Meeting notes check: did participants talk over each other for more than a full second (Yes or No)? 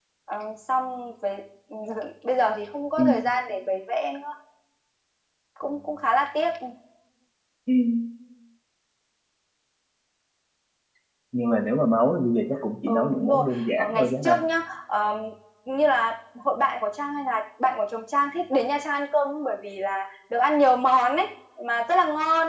Yes